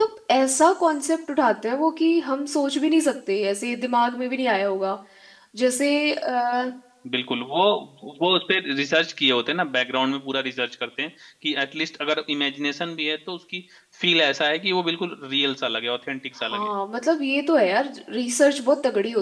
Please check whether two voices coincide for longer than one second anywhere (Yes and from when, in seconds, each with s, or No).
No